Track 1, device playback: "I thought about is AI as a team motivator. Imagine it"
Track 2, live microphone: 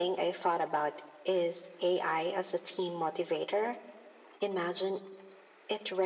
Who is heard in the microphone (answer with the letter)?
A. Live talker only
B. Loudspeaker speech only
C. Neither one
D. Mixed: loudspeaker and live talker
B